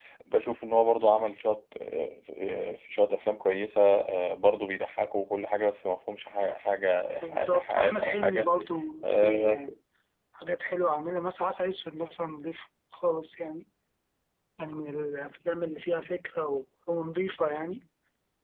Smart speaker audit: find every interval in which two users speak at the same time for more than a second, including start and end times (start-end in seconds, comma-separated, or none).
7.2-8.5